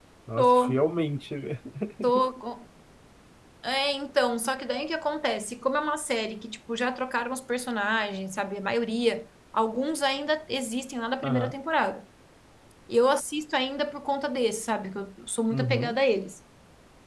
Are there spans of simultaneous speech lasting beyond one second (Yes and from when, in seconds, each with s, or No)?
No